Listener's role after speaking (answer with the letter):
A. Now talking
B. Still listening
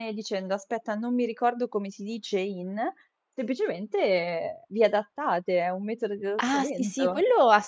A